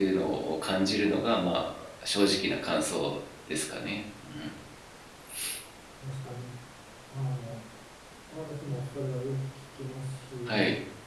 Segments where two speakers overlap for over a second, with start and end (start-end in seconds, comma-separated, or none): none